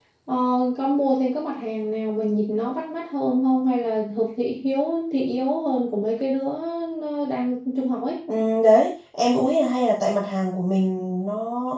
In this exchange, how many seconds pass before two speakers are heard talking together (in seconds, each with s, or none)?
none